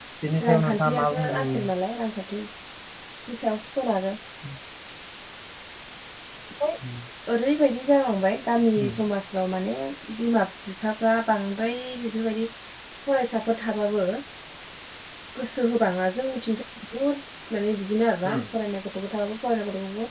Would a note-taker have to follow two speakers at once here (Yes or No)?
Yes